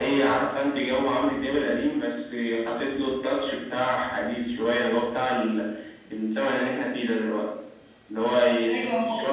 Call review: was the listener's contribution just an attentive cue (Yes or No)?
Yes